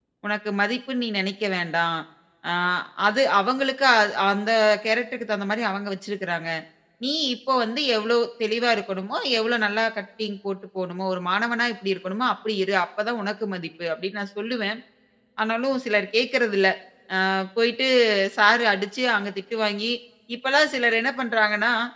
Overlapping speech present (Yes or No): No